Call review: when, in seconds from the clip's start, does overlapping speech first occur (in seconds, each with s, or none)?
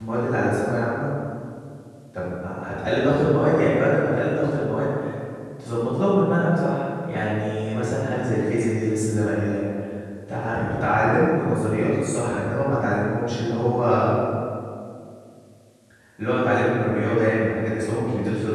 none